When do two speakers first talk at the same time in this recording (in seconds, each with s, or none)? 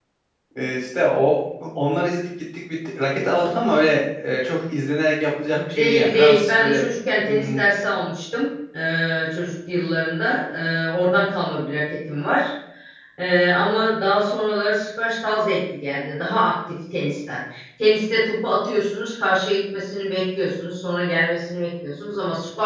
5.5 s